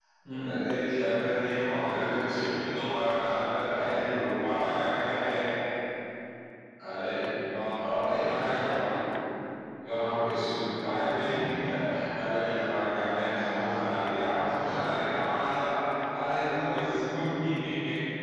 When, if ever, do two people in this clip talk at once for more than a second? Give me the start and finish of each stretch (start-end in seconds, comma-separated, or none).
7.7-8.9